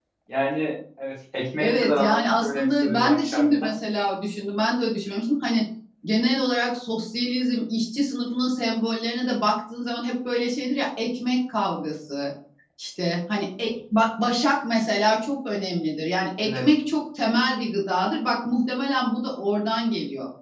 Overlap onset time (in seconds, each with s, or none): 1.6 s